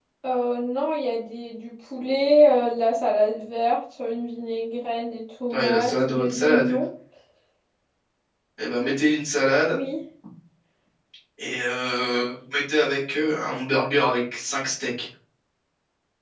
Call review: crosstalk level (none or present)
present